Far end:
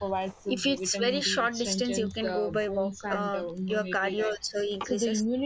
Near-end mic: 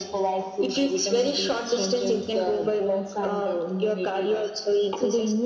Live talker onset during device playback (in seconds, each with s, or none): none